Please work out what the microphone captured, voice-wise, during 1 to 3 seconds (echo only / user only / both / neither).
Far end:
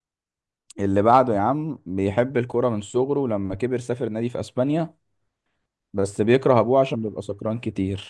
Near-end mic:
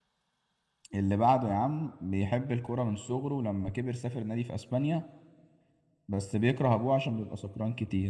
echo only